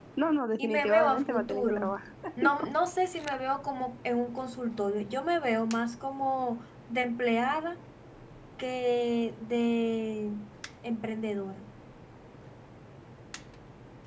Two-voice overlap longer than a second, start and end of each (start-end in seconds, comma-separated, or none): 0.6-1.9